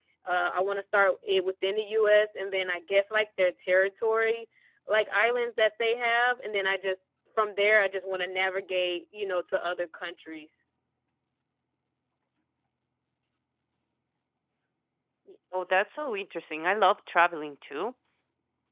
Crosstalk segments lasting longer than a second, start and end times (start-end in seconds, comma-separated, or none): none